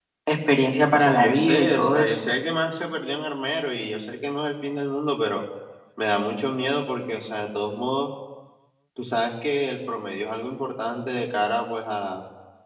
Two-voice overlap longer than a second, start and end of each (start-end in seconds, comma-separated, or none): 0.9-2.1